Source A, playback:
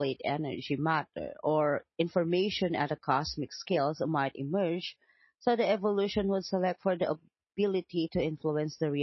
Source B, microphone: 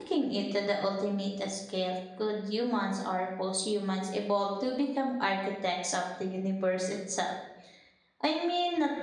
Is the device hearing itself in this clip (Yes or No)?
No